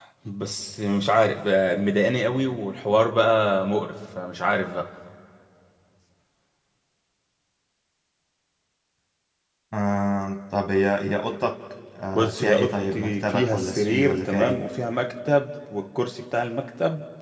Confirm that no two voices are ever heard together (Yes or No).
No